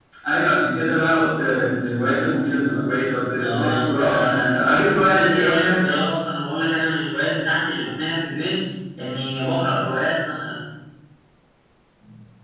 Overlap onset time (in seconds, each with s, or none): 3.4 s